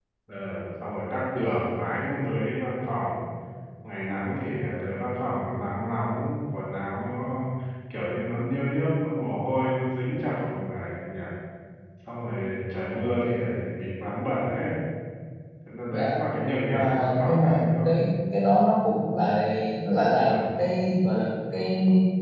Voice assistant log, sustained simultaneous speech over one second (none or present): present